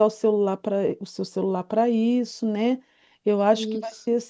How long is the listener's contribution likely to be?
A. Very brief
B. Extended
A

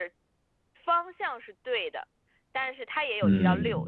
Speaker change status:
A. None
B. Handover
A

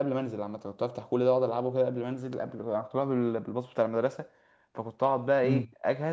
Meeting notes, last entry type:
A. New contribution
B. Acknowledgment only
B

